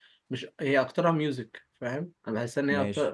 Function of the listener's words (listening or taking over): listening